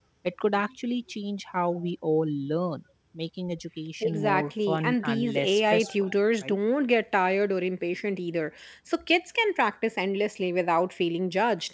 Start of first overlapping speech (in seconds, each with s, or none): 4.0 s